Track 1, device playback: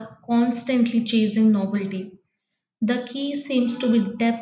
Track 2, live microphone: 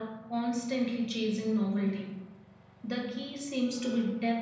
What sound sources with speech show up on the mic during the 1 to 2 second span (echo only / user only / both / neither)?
echo only